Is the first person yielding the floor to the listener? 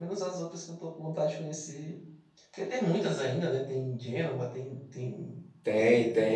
Yes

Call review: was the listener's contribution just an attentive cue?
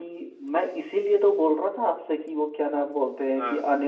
Yes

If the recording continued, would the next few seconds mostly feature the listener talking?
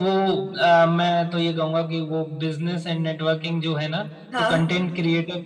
No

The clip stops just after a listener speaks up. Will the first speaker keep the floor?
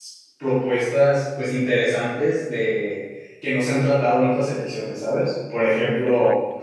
Yes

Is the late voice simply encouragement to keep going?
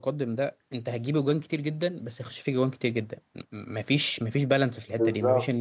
Yes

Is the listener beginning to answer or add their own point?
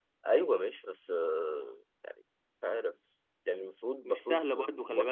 Yes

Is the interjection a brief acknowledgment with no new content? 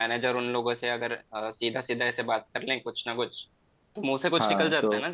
No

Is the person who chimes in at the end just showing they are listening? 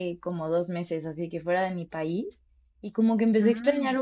Yes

